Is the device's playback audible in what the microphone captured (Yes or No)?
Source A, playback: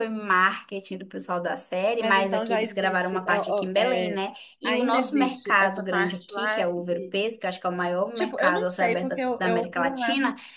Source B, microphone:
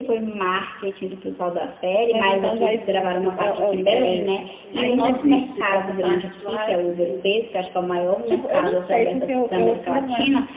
Yes